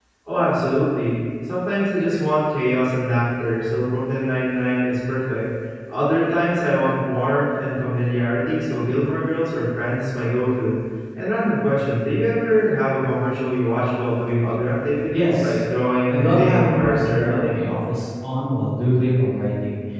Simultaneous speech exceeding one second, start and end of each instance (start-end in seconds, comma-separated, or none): 16.1-17.7